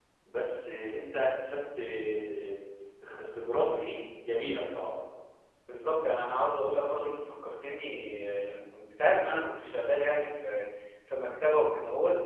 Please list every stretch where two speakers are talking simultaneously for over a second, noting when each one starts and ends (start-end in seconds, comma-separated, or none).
none